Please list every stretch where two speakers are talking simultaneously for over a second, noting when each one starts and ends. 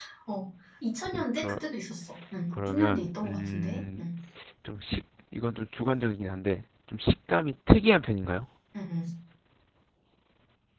2.7-4.0

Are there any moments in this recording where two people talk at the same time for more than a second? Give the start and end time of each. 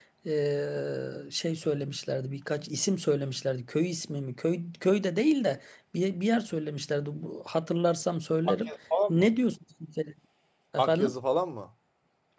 none

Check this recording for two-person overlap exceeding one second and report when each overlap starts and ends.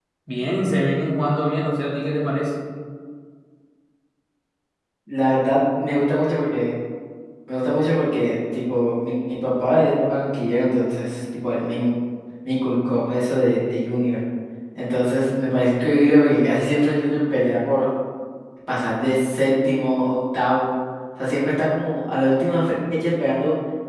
none

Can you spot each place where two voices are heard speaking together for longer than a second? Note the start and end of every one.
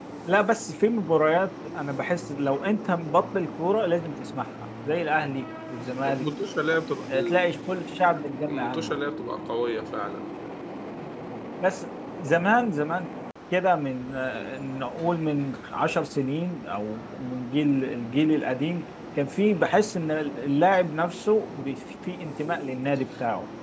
none

